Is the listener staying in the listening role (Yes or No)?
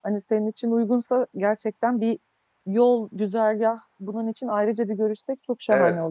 No